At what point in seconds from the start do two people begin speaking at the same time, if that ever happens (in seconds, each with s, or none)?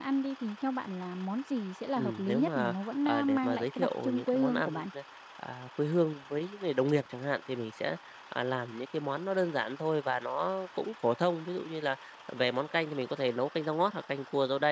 2.0 s